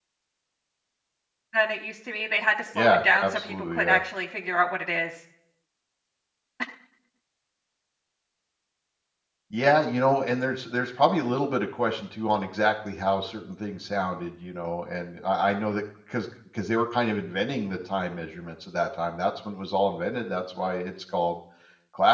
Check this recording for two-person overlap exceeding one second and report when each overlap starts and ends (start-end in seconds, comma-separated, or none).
2.8-4.0